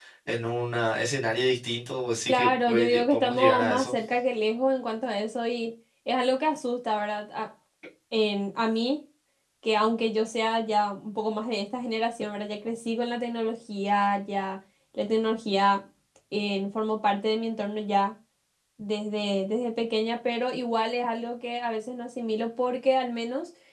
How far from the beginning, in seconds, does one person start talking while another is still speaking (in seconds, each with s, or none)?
2.3 s